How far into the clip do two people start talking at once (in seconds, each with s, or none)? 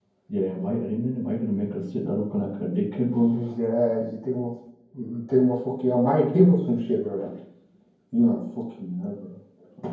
none